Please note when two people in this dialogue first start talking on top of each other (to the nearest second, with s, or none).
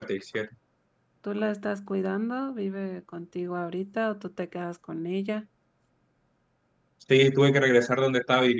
none